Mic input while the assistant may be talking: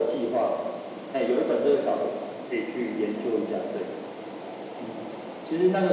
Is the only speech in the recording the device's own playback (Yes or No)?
Yes